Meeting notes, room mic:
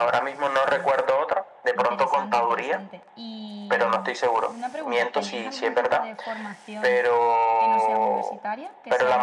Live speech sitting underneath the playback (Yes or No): Yes